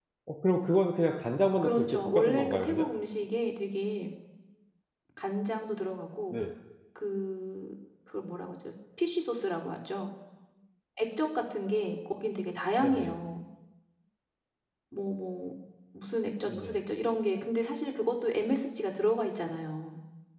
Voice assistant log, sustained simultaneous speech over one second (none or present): present